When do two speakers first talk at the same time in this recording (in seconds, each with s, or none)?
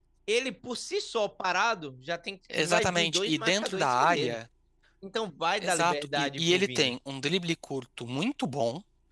2.6 s